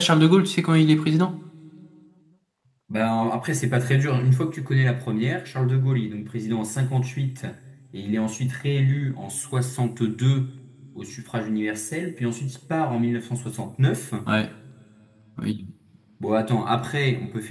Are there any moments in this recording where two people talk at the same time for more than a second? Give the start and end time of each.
none

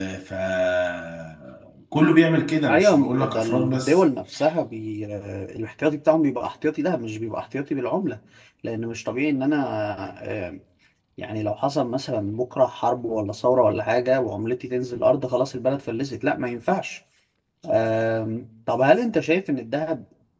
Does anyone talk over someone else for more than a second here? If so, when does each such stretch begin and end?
2.7-4.0

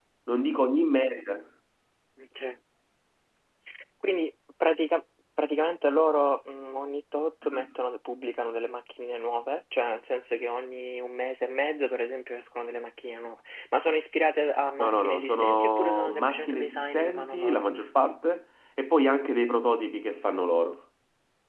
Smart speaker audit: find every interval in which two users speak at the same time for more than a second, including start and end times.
14.8-17.6

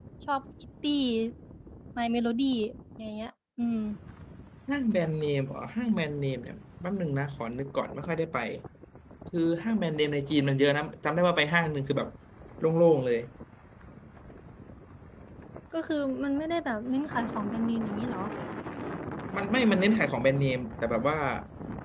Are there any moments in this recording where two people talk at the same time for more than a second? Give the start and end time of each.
none

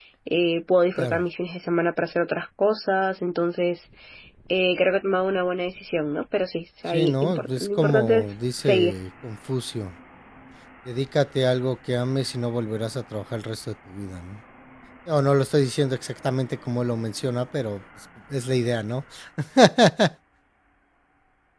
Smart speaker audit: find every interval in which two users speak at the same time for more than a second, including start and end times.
6.9-8.9

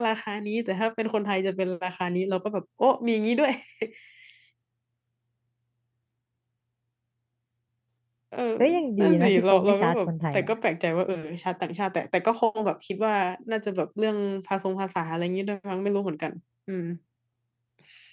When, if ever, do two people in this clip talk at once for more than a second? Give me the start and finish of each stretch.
9.0-10.5

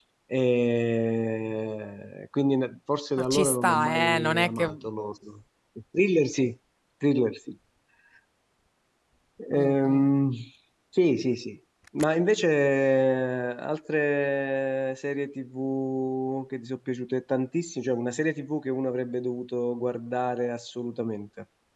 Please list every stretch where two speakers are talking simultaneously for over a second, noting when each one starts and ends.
3.2-4.7

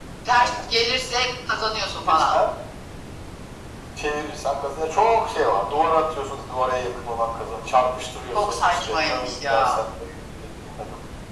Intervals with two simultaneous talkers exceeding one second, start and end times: 8.3-9.8

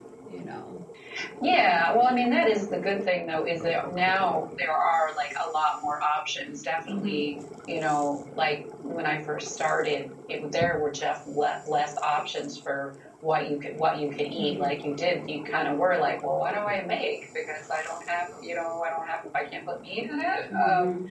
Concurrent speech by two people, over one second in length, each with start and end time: none

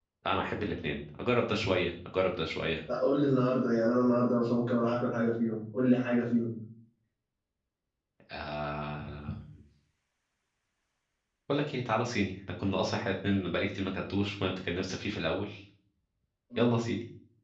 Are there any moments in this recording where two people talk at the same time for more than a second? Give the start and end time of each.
none

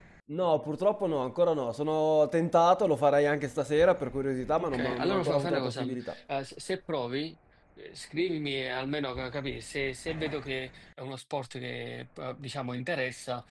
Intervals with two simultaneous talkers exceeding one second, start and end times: 4.6-6.1

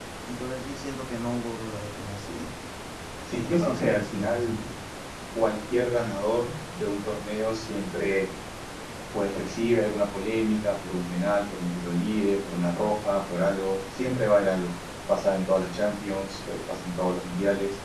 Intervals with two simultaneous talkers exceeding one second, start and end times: 3.3-4.6

